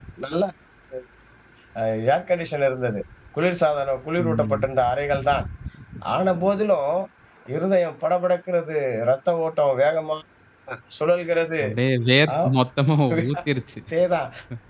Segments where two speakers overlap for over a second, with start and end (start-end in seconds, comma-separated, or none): none